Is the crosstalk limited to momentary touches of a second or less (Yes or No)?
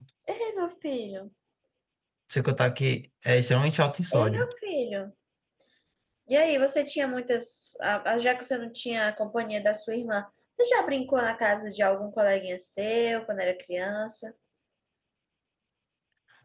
Yes